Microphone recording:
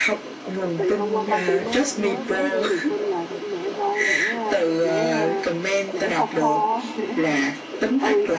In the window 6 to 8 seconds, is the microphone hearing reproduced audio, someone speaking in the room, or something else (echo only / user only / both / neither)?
both